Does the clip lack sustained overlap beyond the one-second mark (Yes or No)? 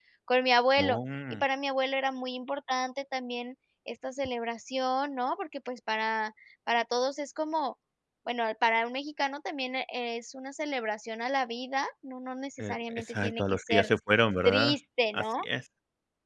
No